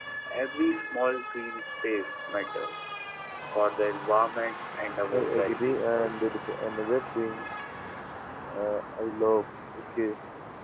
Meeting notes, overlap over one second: present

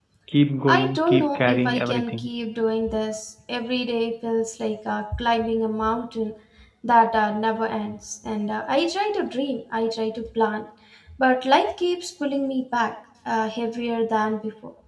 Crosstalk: present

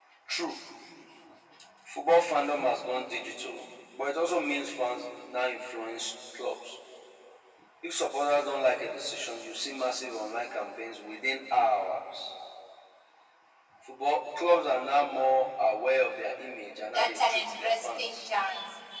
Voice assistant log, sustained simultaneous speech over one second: present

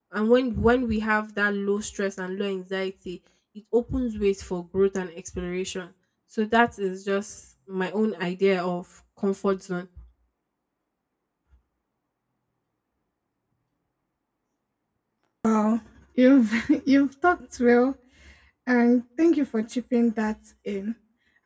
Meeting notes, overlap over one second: none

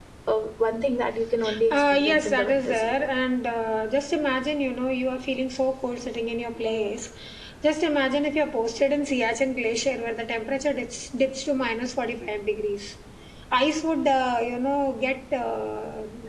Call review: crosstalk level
present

